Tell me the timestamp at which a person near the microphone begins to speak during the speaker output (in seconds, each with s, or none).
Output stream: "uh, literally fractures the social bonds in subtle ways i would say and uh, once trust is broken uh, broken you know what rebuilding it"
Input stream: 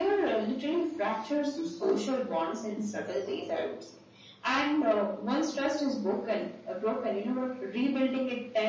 none